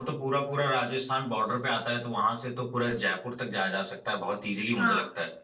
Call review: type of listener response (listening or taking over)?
taking over